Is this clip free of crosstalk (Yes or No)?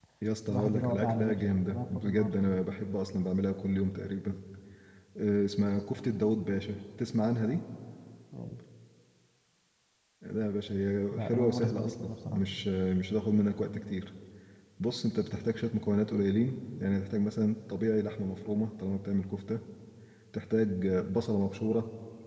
No